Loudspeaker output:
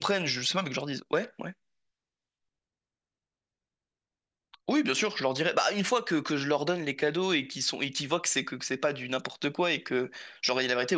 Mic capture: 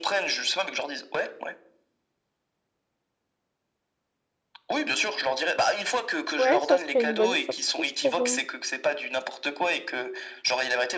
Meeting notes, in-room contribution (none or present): present